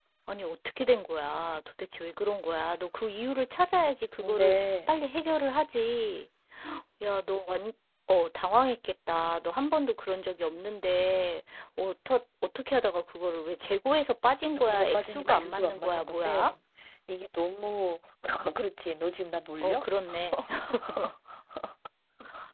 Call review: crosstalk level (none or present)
present